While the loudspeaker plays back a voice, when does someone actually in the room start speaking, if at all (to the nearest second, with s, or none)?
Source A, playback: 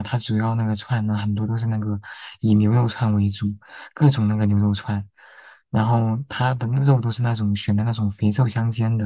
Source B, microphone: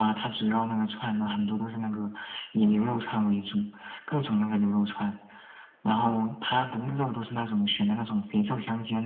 none